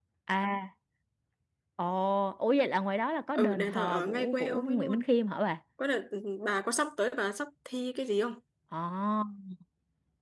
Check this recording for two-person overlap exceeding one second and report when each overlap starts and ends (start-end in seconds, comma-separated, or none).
3.4-5.0